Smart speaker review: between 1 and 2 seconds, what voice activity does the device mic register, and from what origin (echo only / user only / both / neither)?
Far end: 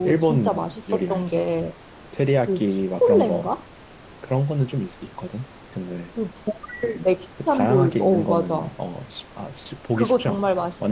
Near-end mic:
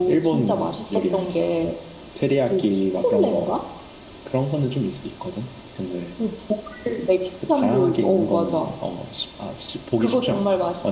echo only